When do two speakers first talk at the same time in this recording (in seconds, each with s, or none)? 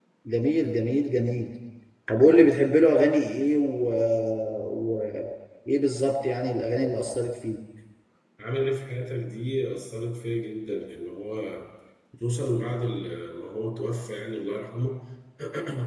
none